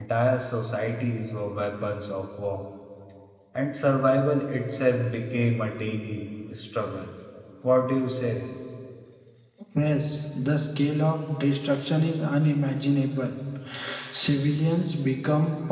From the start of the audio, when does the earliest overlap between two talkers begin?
none

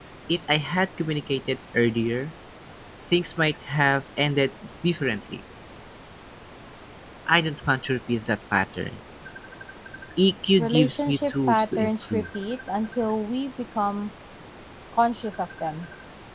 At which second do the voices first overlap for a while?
11 s

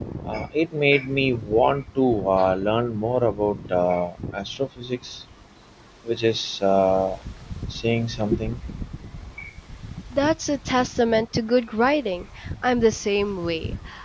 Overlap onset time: none

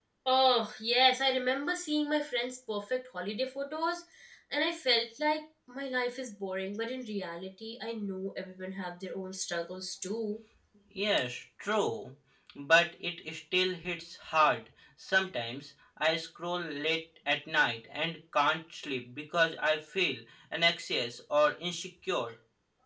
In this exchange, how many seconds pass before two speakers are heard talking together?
none

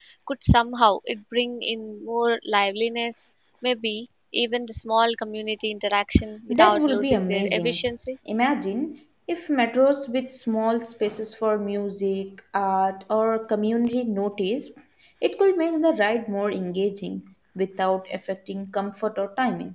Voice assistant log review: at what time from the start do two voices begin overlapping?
6 s

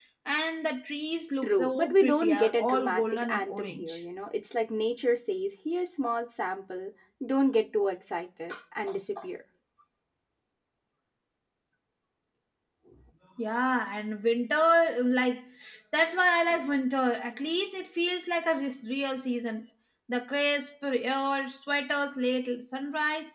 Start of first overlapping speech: 1 s

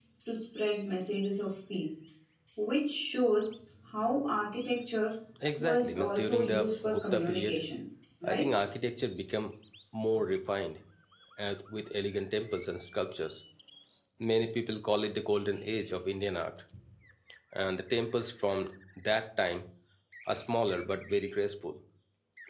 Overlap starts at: 6 s

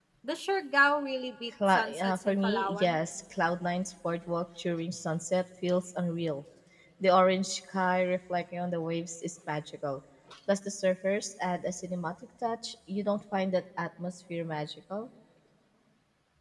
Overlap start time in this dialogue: 2 s

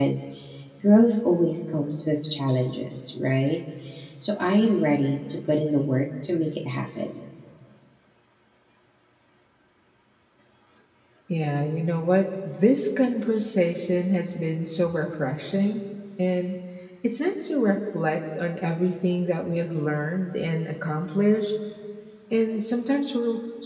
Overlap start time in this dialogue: none

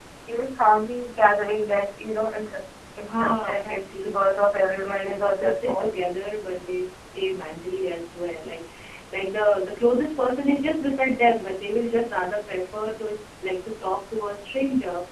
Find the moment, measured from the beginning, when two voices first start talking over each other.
3 s

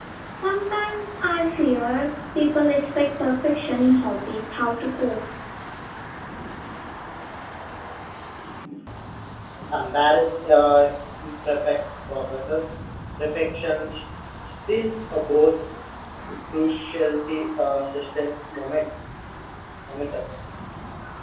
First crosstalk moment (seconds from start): none

